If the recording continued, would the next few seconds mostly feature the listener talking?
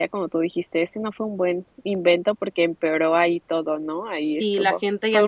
Yes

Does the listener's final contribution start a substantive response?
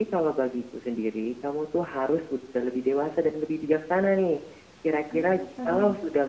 No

